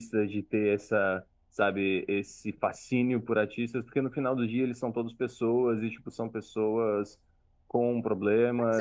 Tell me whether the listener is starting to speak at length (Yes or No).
Yes